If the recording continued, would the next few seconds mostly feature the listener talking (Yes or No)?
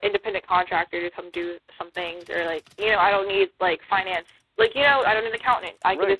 Yes